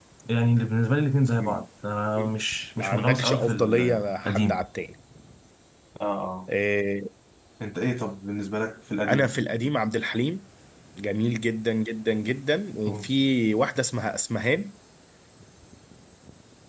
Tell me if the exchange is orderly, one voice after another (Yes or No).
No